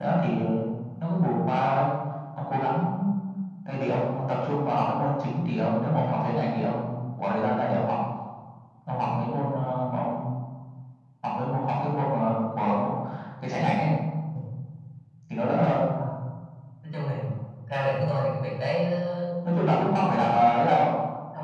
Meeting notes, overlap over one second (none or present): none